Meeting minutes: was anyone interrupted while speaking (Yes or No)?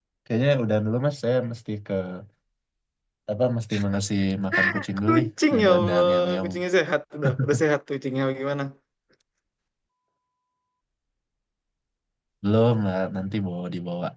Yes